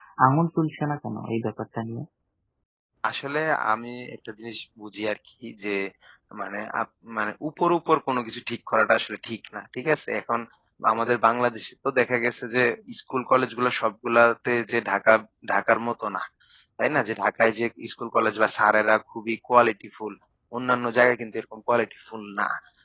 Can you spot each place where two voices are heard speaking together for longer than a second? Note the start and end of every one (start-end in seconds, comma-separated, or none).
none